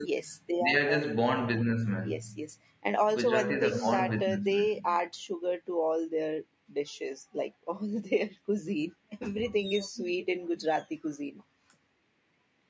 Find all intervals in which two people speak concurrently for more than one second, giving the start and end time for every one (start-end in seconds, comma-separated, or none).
3.1-5.0